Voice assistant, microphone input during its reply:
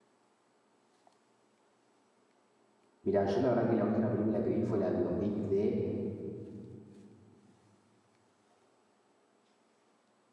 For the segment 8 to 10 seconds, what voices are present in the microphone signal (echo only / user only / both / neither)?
neither